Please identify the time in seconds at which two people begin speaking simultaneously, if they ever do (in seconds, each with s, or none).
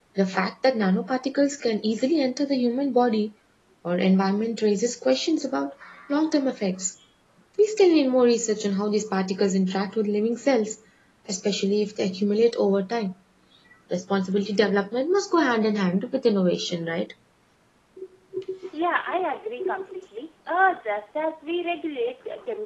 none